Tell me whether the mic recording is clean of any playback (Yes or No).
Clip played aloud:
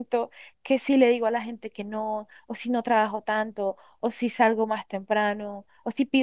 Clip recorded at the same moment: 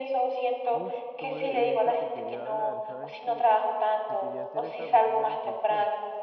No